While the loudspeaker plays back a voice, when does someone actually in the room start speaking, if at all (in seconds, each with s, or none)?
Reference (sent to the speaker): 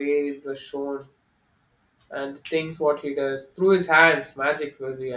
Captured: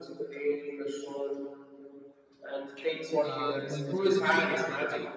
3.3 s